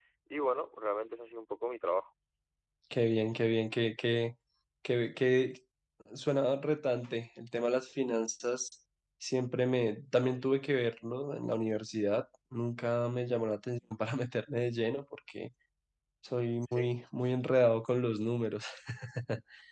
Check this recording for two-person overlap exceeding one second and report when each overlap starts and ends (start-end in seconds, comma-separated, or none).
none